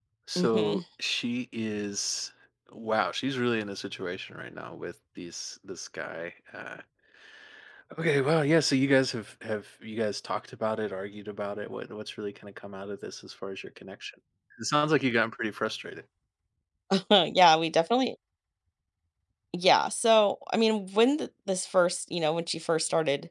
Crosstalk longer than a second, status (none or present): none